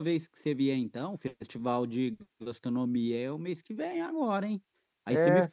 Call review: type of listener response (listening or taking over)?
listening